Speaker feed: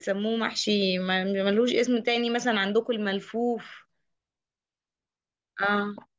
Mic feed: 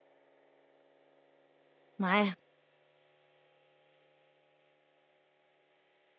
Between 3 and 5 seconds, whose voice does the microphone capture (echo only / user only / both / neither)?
neither